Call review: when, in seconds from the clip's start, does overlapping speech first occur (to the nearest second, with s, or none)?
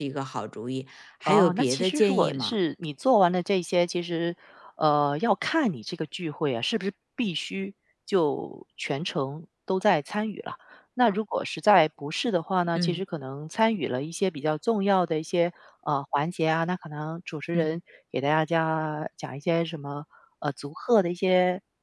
1 s